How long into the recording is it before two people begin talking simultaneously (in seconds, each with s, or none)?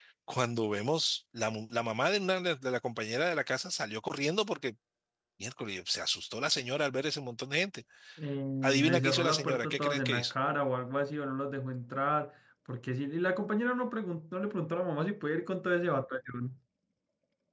8.8 s